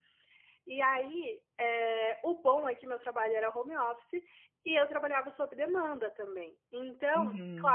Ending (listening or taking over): listening